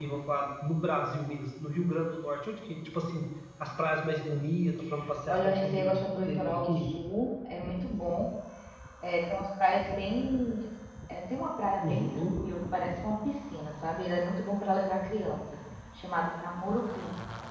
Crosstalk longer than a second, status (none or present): present